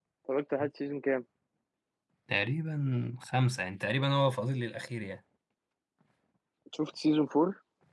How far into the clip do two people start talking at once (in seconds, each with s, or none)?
none